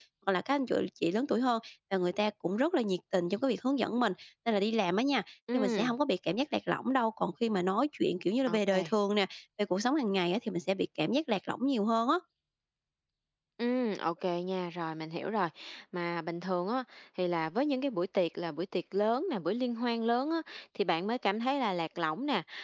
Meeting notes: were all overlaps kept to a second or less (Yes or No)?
Yes